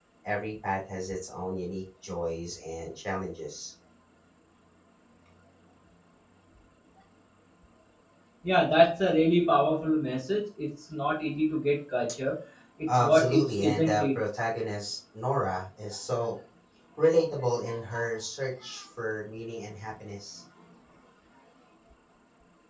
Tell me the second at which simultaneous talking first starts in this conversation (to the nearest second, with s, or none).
13 s